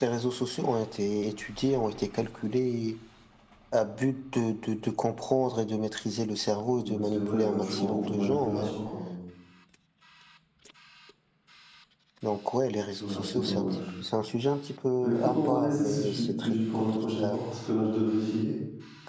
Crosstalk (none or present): present